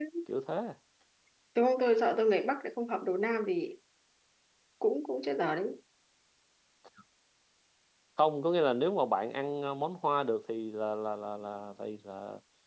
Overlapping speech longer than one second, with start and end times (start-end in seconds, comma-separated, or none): none